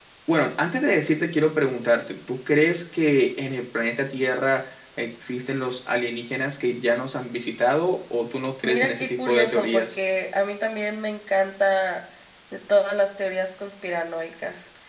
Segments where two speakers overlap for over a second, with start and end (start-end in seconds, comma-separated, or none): 8.6-9.9